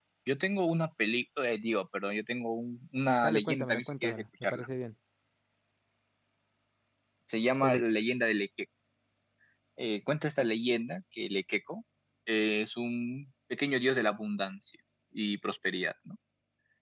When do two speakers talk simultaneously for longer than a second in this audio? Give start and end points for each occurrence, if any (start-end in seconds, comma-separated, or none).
3.2-4.7